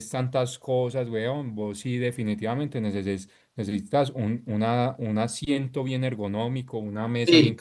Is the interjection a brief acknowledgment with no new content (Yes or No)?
Yes